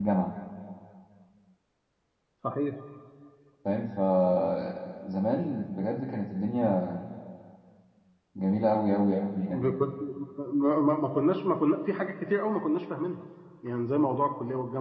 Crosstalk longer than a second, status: none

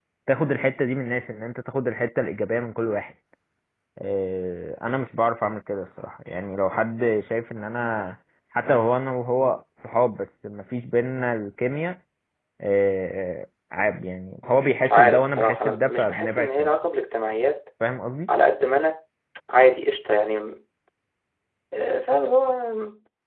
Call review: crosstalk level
present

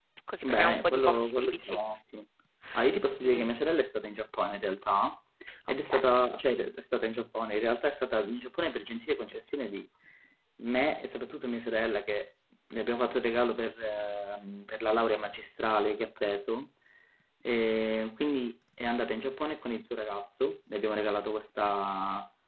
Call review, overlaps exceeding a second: present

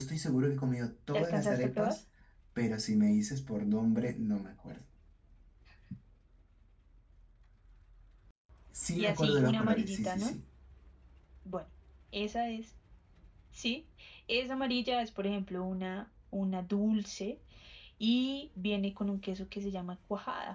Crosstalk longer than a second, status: present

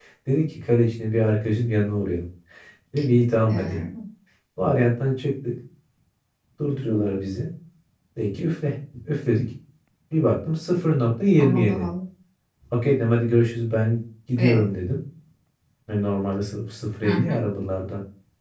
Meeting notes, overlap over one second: none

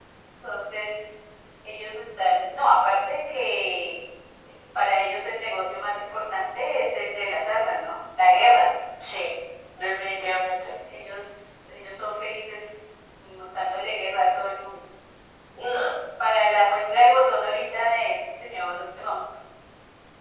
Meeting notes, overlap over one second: none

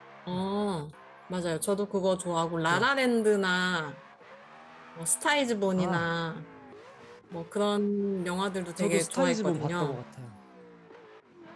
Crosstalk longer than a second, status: present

